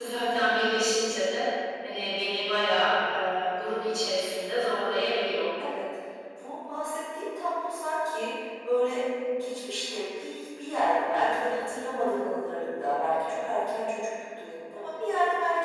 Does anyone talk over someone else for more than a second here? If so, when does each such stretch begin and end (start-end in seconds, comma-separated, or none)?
none